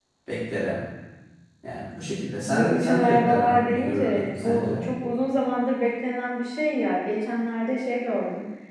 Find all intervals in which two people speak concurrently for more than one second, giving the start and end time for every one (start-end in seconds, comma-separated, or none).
2.5-4.8